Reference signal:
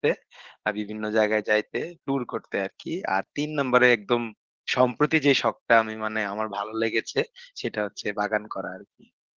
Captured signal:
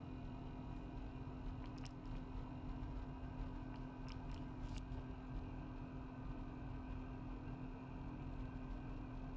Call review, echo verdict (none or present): none